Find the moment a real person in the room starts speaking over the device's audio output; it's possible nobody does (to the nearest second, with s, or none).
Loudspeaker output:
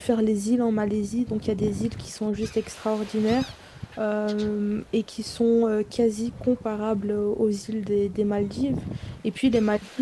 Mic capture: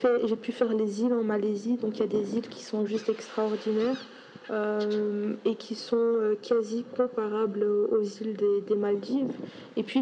none